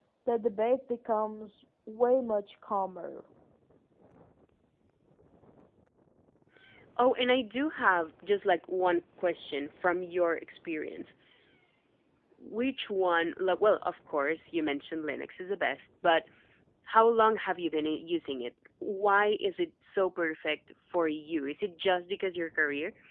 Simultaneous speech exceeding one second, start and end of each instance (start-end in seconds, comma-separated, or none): none